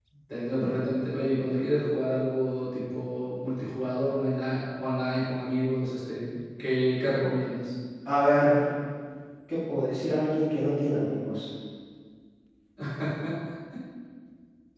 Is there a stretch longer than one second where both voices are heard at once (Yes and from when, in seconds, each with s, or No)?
No